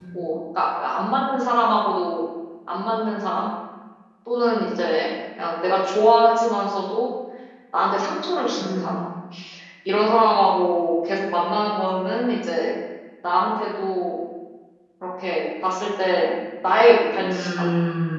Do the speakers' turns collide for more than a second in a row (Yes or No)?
No